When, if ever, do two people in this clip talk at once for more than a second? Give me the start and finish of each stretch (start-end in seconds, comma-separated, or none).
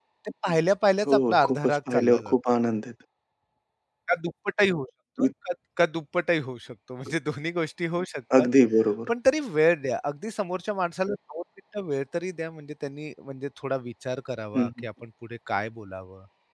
1.1-2.3